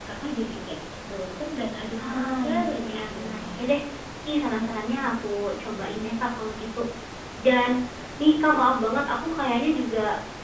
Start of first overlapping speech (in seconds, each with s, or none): 2.0 s